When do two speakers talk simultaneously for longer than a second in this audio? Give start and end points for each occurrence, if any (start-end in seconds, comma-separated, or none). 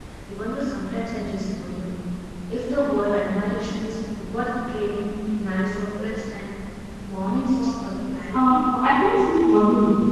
none